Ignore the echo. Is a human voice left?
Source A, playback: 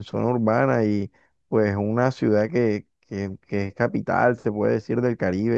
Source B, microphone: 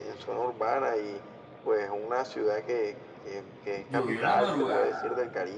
Yes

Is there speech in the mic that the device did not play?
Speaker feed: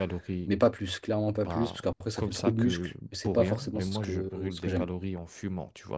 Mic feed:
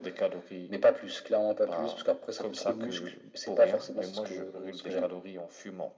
No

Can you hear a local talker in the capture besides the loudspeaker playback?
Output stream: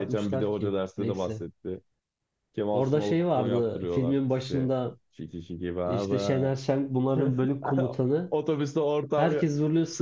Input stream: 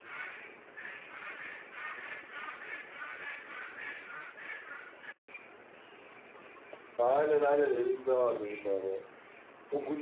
Yes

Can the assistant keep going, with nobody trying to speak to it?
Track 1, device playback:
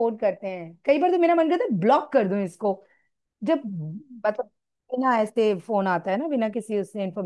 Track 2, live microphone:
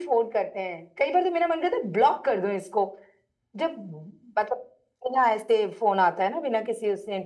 Yes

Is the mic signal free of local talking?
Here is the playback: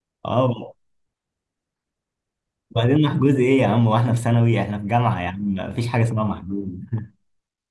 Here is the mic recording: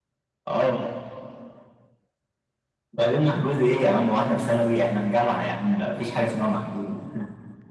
Yes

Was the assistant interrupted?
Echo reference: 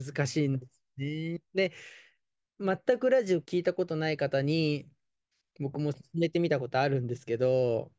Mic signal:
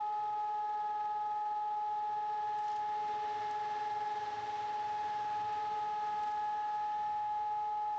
No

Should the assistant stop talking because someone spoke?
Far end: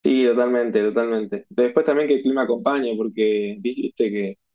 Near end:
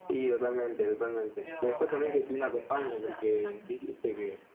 Yes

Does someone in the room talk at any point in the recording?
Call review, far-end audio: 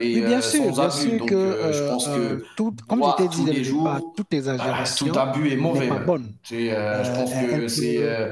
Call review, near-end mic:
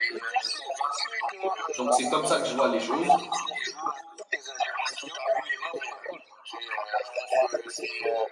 Yes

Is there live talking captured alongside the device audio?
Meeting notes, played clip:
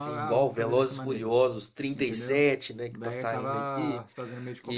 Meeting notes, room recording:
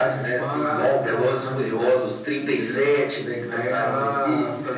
No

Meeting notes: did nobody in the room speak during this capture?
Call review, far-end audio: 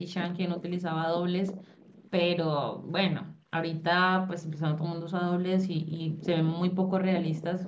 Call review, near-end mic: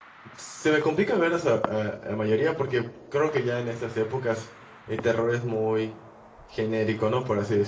No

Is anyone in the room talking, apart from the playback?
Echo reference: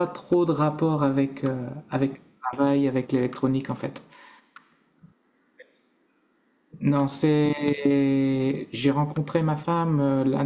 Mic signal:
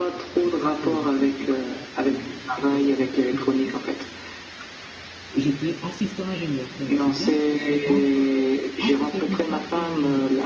Yes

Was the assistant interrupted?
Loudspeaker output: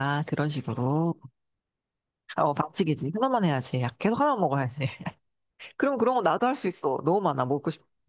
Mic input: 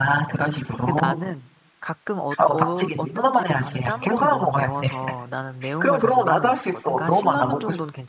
Yes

